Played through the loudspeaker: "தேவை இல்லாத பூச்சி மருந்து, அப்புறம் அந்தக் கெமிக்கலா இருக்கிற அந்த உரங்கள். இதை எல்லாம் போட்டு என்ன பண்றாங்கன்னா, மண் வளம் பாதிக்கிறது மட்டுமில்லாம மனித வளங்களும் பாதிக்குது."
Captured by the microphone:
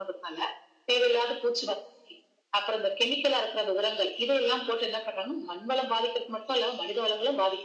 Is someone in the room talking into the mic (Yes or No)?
No